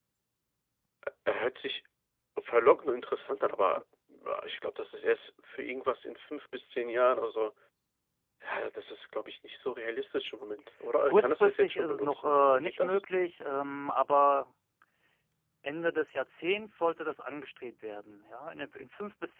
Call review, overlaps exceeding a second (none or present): present